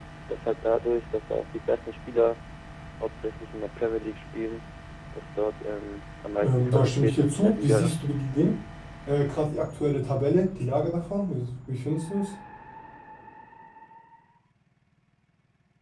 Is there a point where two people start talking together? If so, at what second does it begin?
6 s

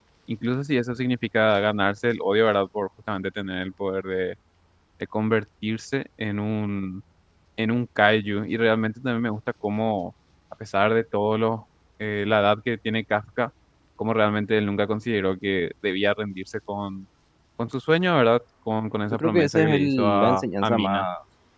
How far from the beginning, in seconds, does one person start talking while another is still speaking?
19 s

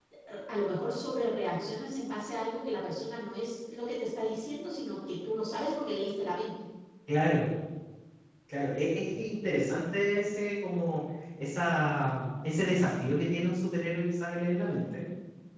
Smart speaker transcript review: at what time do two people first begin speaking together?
none

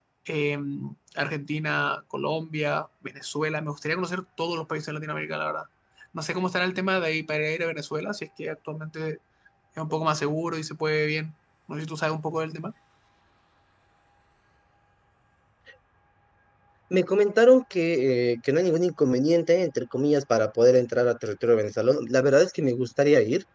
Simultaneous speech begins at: none

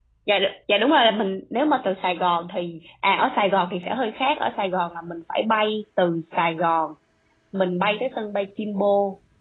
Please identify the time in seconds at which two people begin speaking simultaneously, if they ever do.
none

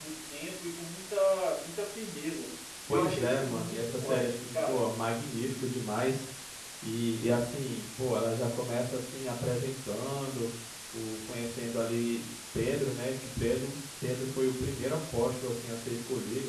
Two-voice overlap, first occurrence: 3 s

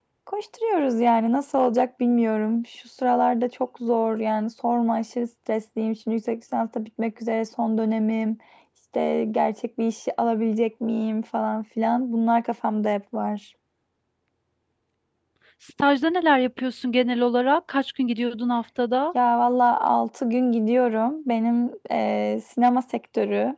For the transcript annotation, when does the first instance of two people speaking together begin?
none

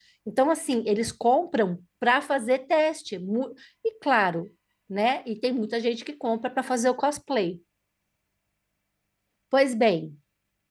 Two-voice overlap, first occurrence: none

